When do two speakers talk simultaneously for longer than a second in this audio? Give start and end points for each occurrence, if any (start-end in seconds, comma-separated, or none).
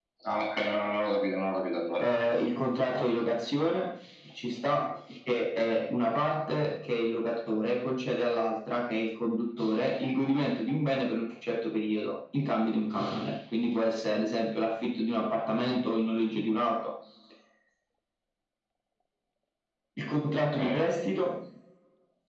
none